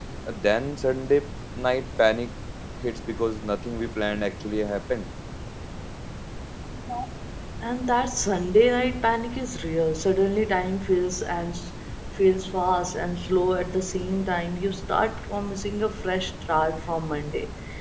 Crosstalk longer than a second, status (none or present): none